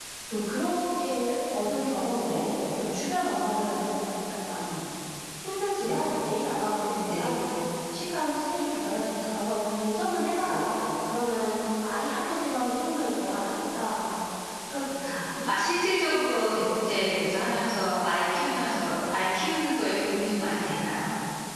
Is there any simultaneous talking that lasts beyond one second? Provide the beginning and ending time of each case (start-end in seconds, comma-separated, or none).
none